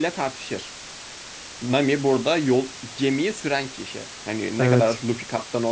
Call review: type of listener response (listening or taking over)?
listening